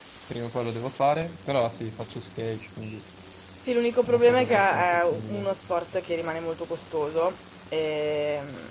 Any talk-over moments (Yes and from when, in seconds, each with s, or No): Yes, from 4.0 s